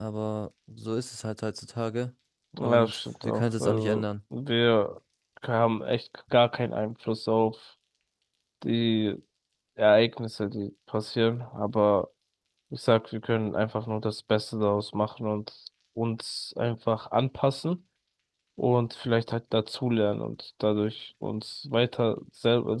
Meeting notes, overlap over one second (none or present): present